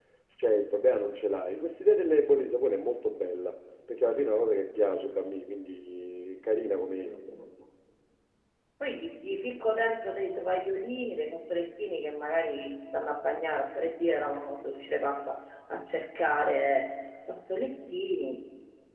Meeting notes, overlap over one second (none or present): none